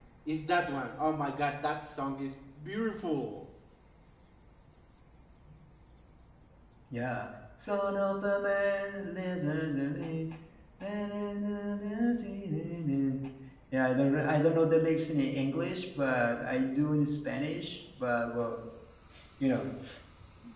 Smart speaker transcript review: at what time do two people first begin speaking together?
none

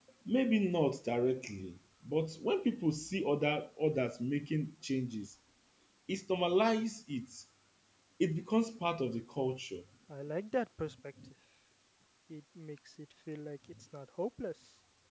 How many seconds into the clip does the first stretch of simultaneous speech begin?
none

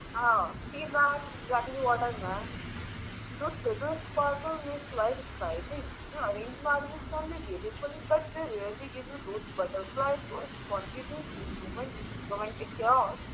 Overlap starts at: none

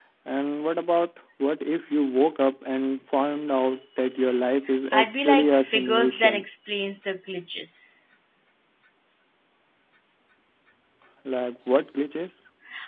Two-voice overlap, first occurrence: 4.9 s

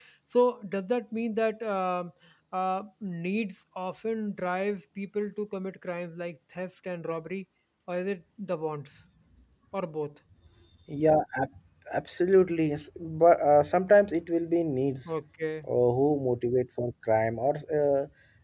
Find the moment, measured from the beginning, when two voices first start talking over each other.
none

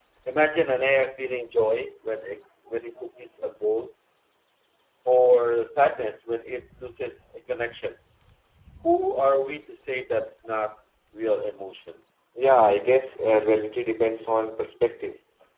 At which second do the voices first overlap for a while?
none

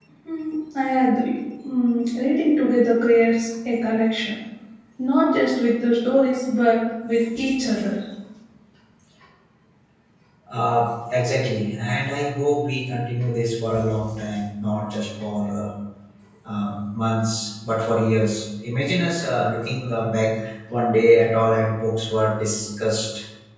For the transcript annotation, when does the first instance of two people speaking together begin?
none

